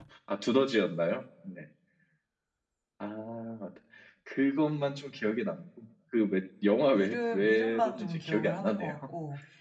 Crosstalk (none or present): present